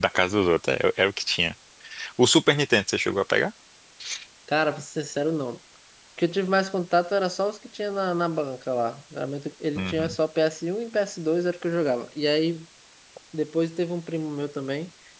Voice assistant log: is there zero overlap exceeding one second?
Yes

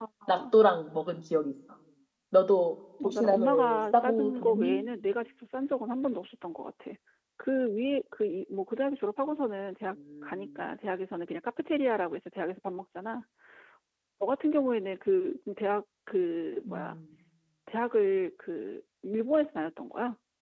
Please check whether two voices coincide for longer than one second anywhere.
Yes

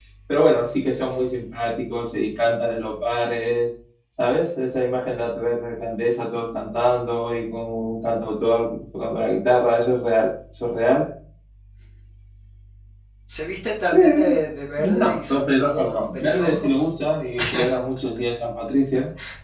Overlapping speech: Yes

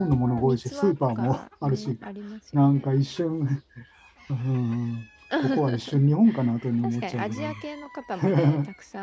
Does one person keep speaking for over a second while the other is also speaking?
Yes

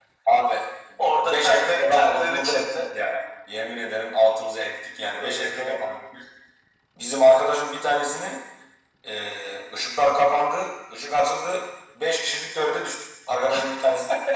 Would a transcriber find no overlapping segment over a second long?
No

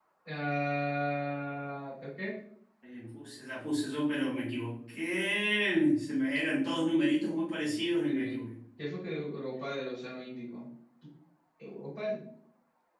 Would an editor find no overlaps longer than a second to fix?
Yes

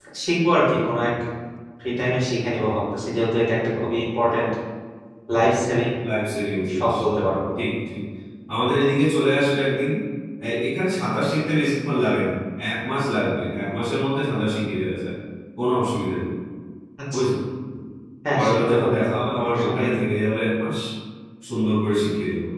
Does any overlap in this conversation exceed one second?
Yes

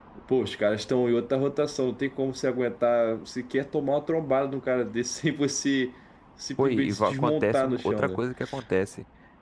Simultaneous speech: Yes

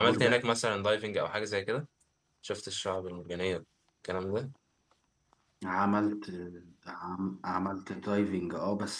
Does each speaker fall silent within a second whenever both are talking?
Yes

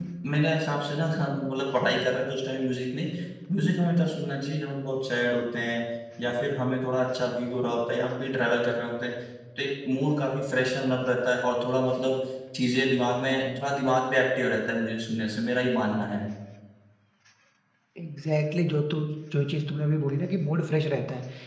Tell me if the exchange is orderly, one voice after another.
Yes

